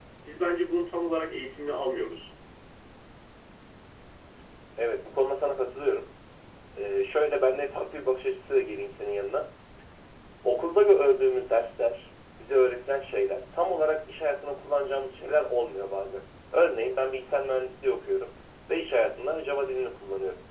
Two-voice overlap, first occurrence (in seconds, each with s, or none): none